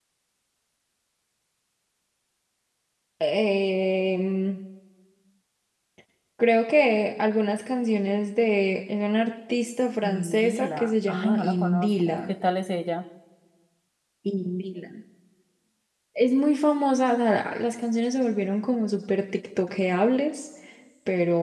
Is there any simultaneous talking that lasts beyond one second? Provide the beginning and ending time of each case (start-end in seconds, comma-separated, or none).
10.0-12.3